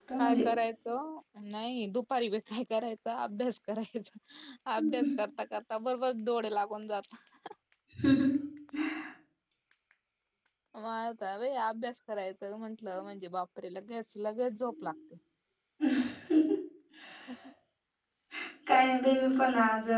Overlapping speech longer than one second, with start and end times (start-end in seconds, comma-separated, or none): none